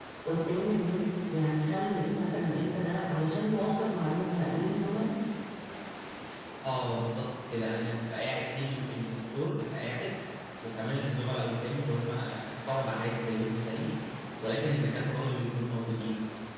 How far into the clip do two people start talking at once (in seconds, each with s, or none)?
none